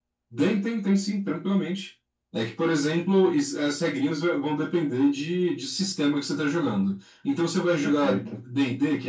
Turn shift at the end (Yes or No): No